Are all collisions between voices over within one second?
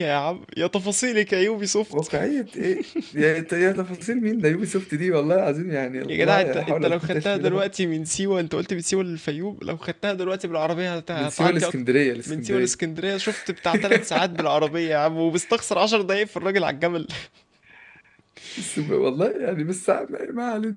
No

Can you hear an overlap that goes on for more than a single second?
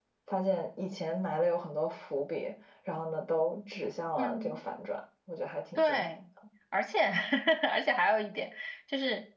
No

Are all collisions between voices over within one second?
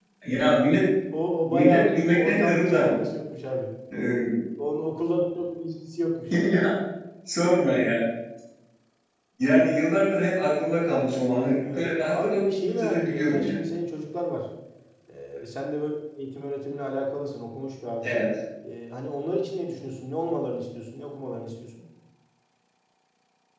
No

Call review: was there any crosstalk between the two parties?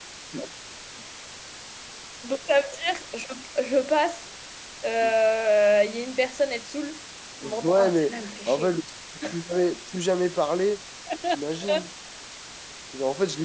Yes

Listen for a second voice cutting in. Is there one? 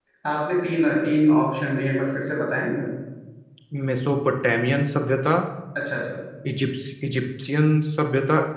No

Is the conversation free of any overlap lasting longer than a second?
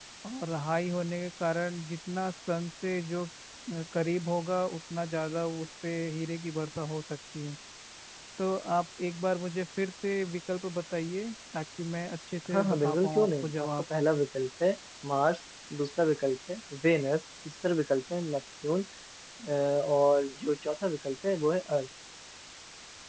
No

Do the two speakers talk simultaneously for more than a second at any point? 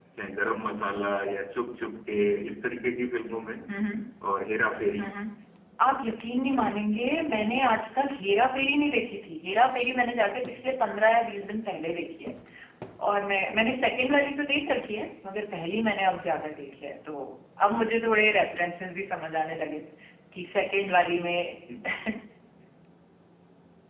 No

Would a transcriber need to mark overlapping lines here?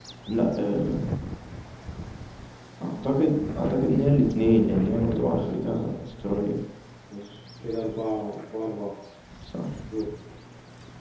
Yes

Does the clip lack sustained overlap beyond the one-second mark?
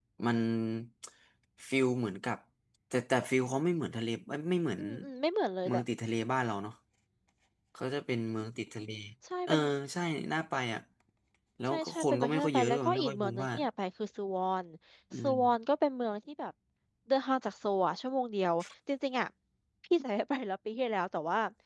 No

